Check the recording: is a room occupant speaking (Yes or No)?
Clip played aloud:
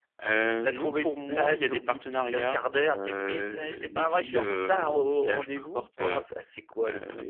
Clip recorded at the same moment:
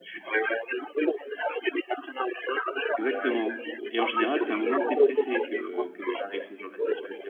Yes